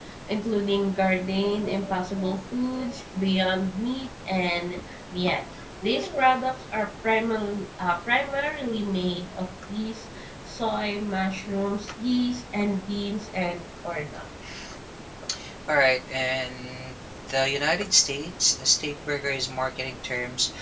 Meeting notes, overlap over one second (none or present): none